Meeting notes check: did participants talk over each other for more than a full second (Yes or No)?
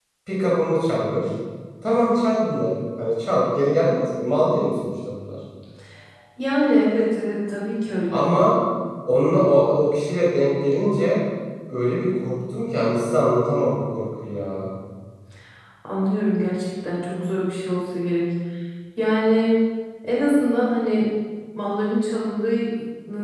No